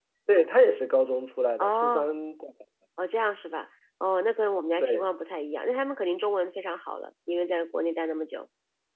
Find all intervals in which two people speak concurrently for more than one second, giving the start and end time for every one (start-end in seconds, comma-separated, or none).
none